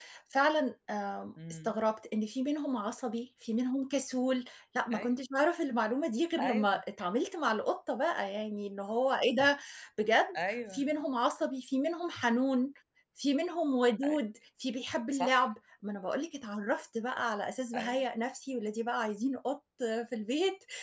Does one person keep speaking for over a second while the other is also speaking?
No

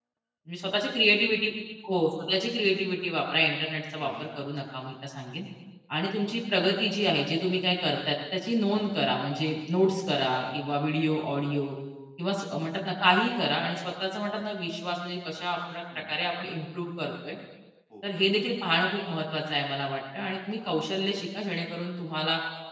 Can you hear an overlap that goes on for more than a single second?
No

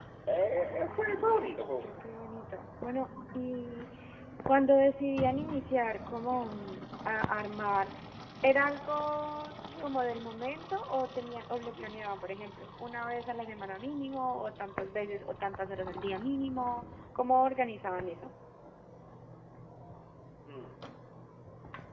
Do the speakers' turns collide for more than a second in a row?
Yes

